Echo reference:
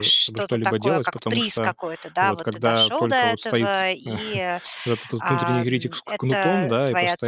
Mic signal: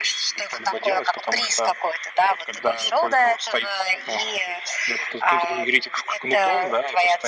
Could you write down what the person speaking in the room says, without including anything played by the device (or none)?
none